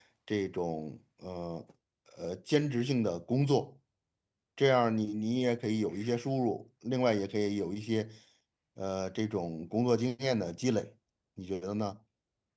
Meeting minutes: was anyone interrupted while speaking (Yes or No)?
No